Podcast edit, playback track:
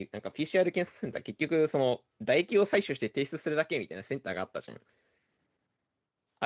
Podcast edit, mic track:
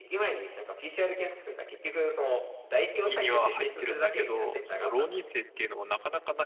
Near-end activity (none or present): present